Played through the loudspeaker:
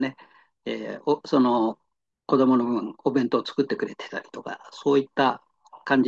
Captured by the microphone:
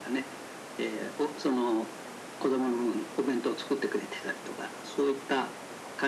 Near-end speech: none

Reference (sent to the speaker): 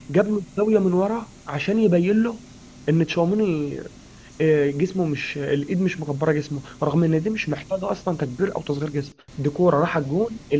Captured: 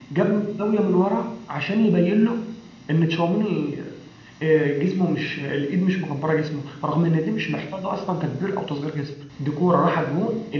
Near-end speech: none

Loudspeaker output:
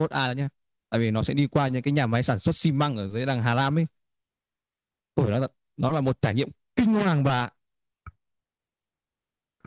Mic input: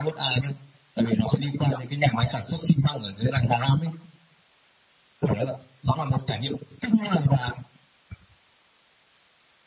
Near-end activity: none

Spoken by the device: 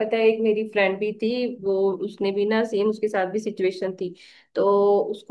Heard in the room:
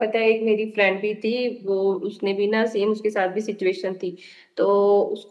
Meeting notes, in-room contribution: none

